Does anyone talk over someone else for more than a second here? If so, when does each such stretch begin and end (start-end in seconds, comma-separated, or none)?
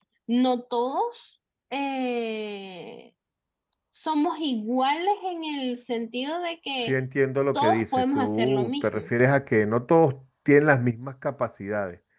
7.6-9.1